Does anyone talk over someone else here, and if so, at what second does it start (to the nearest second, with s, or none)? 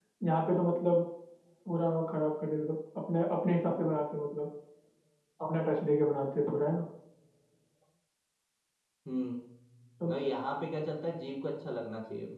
none